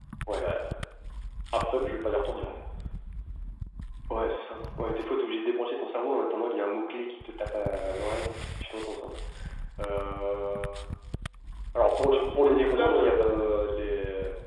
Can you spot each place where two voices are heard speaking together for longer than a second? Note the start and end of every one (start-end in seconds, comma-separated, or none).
12.1-13.6